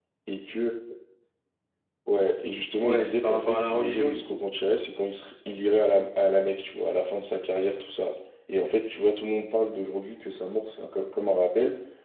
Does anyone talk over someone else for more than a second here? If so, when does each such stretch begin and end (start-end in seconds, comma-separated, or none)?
2.8-4.4